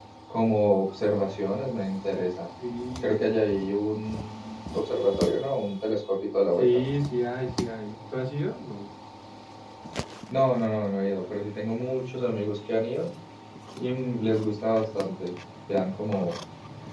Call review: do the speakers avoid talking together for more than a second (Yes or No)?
Yes